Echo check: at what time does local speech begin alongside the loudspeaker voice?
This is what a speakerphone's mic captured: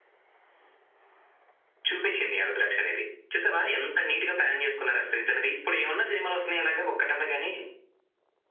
none

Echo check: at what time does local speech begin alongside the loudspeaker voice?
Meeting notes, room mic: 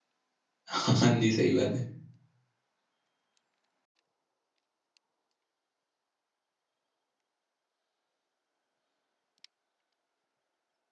0.7 s

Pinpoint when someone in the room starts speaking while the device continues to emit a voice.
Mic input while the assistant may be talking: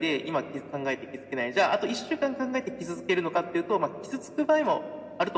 none

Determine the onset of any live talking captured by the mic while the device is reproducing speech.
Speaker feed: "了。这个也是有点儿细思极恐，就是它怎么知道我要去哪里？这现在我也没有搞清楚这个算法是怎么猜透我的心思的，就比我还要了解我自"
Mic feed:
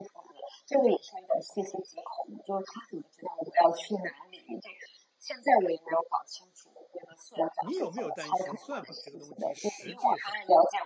7.6 s

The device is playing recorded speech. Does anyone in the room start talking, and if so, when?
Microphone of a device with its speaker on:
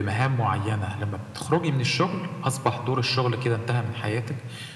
none

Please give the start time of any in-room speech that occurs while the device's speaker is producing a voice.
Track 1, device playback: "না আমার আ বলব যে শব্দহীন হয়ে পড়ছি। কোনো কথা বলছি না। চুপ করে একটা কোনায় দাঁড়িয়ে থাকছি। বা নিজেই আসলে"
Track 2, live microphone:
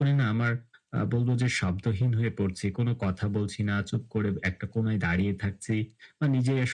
none

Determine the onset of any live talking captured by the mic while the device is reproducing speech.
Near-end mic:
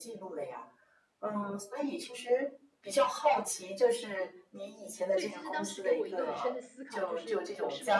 5.1 s

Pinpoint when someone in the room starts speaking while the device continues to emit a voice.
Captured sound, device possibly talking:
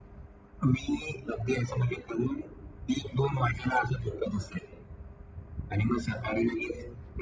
none

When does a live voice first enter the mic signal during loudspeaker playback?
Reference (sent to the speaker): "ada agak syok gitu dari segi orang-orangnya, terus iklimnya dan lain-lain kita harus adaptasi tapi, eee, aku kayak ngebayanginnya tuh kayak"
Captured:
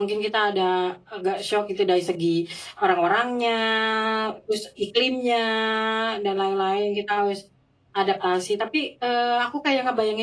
none

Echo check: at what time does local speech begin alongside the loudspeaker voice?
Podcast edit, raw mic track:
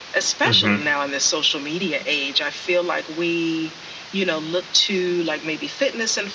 0.4 s

